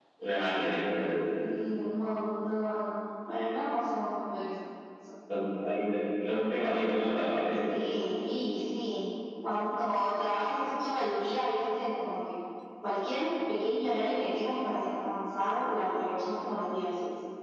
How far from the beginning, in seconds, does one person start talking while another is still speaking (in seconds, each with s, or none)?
none